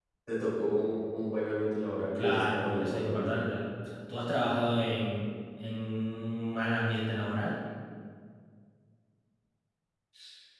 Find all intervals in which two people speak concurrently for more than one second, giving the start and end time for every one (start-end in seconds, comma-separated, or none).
2.2-3.4